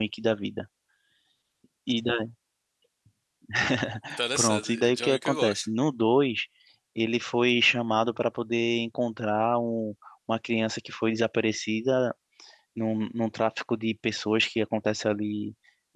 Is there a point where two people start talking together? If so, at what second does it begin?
4.4 s

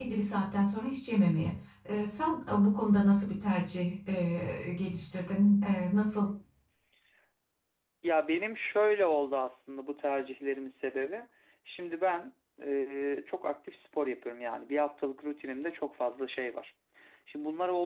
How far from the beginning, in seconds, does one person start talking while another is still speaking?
none

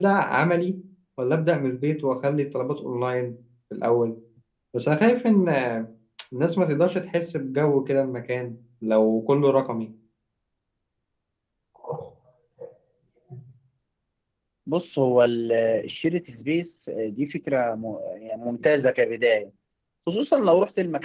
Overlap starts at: none

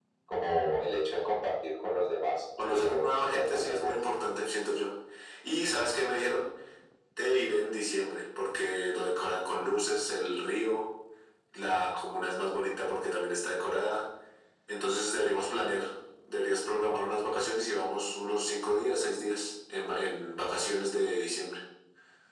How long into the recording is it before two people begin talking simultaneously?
2.6 s

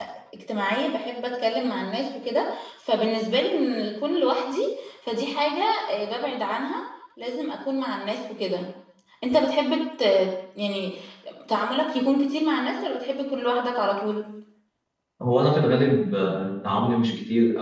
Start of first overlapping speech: none

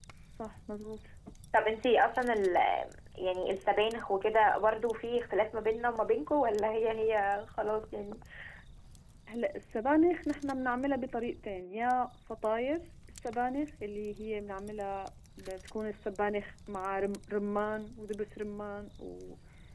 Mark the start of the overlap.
none

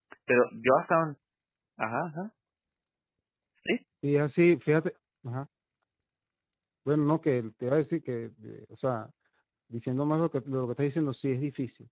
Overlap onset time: none

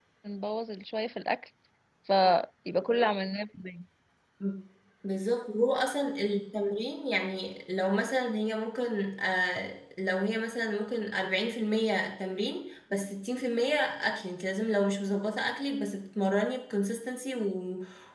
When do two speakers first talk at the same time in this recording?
none

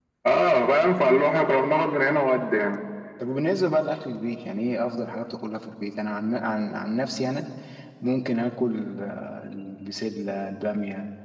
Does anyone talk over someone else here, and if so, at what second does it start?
none

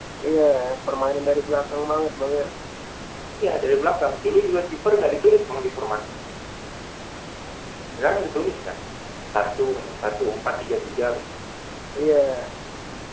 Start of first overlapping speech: none

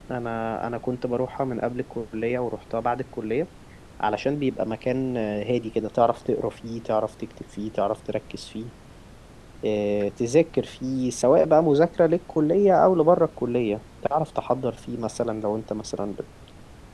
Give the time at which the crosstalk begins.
none

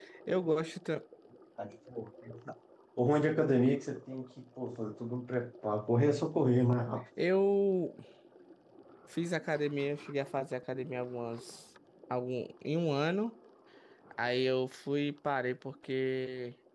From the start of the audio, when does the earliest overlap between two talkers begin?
none

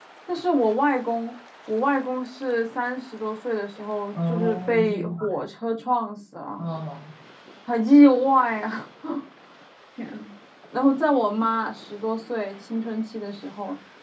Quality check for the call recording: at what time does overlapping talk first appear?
4.1 s

